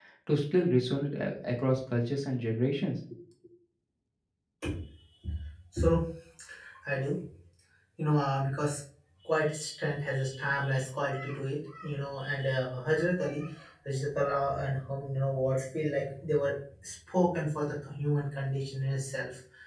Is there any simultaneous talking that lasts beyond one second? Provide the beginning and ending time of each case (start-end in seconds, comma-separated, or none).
none